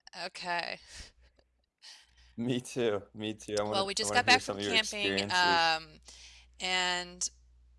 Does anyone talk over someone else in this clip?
Yes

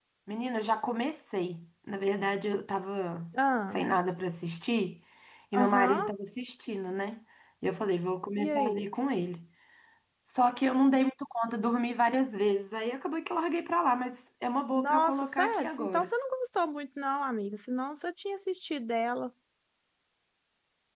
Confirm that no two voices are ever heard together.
No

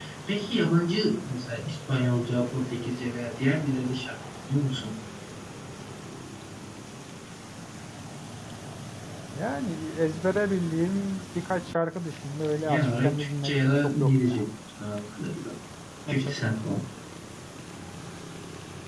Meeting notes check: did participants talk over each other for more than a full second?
Yes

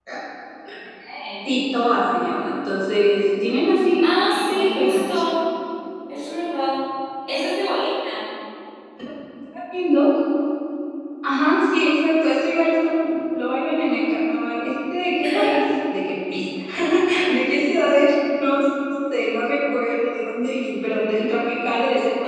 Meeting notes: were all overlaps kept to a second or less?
No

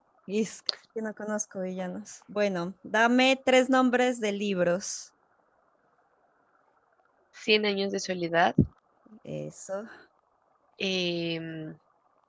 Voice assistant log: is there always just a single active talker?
Yes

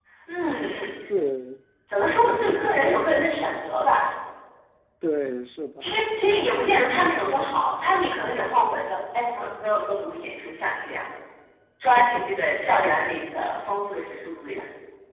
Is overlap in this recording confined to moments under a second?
Yes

